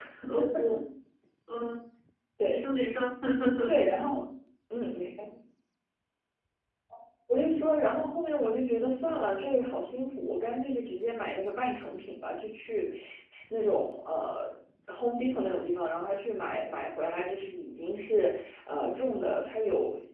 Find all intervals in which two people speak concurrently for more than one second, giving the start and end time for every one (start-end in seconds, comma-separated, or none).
none